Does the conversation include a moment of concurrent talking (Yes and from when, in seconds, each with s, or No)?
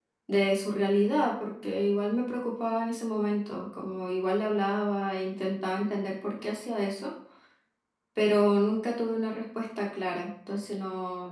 No